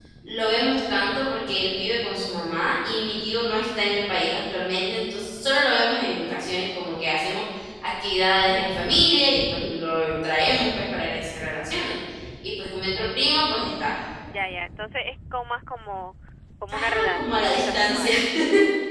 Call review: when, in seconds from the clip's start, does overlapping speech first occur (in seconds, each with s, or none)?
16.7 s